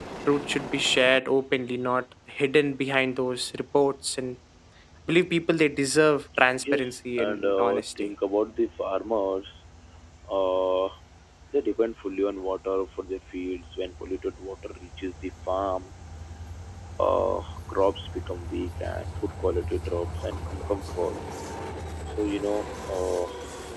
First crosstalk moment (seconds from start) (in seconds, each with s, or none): 6.5 s